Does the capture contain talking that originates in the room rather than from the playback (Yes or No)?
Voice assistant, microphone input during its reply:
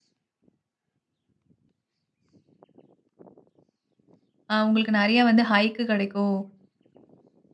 Yes